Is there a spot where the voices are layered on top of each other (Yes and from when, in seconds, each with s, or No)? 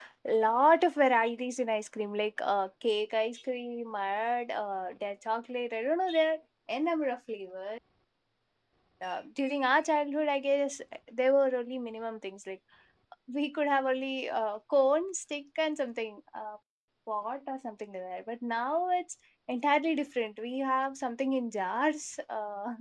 No